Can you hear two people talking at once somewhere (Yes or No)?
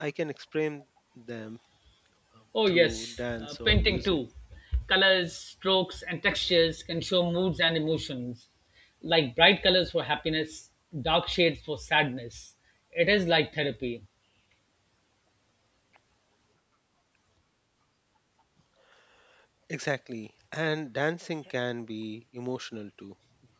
Yes